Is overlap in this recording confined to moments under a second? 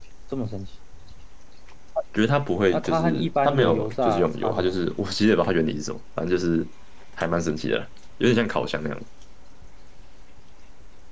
No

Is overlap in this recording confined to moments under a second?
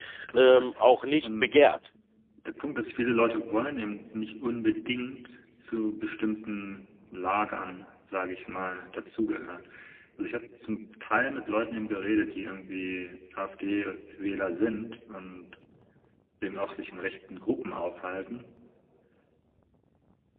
Yes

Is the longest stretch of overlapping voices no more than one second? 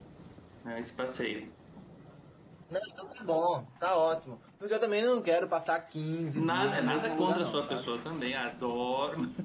No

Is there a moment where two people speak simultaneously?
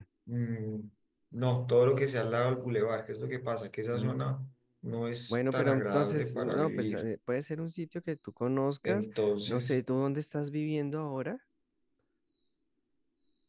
Yes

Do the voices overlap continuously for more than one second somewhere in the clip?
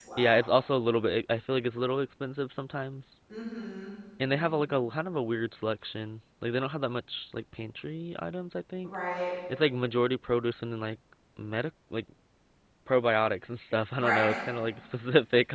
No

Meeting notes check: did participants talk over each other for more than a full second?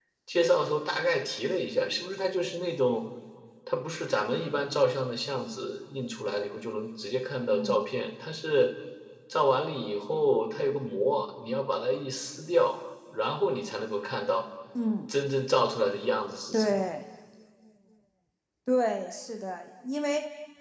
No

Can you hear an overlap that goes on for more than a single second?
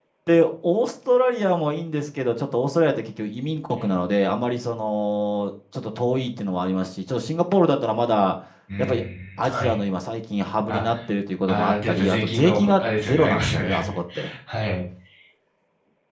Yes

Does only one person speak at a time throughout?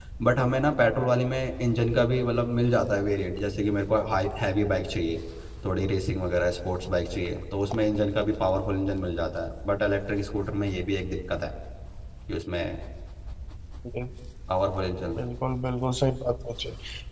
Yes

